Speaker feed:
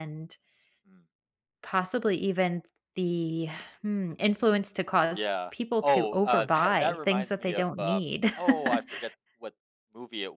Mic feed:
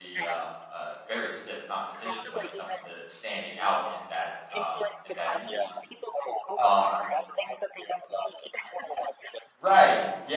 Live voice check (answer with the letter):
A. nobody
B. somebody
B